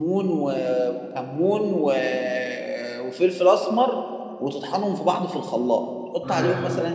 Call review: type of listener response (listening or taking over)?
listening